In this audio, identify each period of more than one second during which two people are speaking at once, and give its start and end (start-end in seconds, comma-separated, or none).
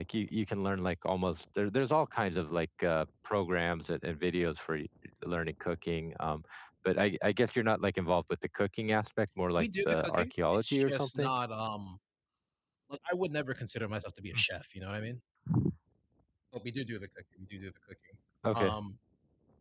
9.6-11.4